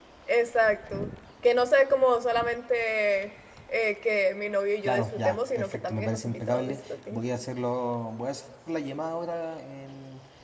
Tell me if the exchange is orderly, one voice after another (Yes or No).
No